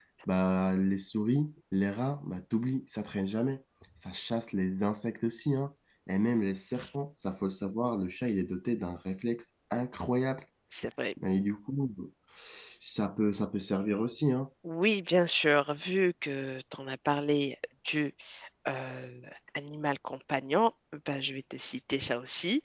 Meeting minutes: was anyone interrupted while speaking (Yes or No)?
No